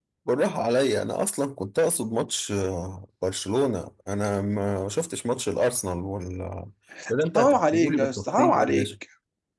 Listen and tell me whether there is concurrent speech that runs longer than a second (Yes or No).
Yes